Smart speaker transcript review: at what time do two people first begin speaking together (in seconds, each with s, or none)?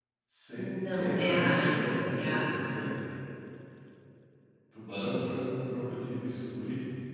0.8 s